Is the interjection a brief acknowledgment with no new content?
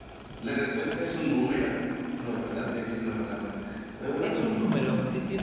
No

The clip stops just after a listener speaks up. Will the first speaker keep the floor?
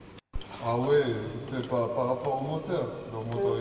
No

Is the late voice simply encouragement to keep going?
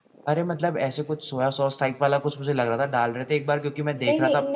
No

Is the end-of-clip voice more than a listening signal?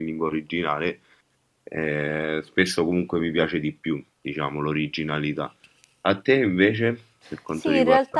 Yes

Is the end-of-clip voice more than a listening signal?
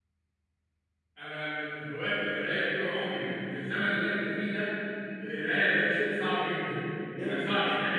No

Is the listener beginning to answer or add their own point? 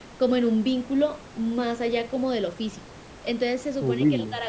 No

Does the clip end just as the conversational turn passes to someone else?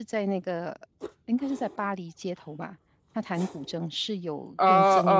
Yes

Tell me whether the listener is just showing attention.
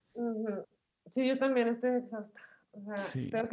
Yes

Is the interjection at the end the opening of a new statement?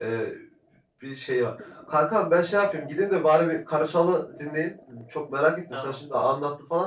No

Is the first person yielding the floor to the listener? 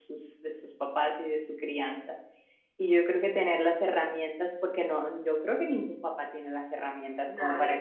No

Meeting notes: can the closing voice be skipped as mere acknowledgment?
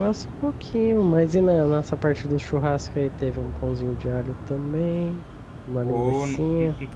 No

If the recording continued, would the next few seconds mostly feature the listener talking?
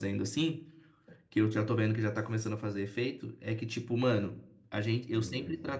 No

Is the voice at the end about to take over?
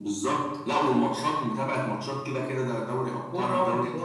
Yes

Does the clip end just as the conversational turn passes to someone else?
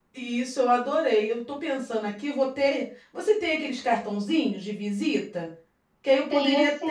No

